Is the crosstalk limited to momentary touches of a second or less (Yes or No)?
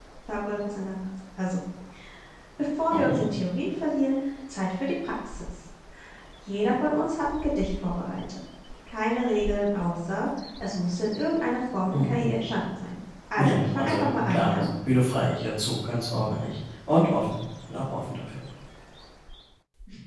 No